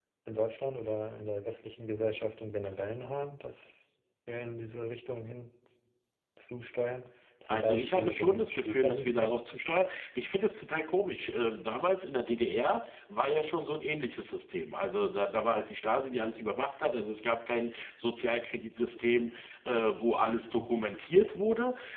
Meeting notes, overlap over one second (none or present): present